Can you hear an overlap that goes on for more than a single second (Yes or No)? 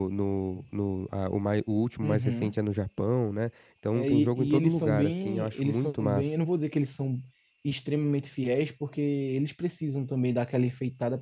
Yes